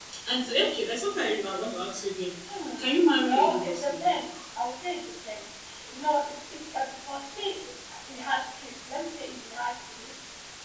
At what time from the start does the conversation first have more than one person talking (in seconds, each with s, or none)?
2.8 s